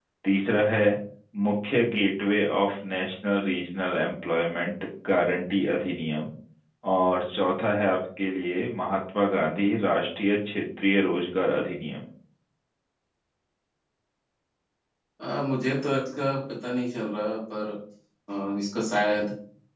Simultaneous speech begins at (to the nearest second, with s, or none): none